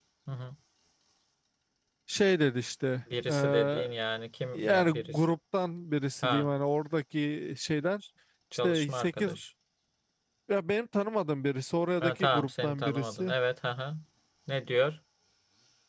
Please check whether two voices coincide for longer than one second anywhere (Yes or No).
Yes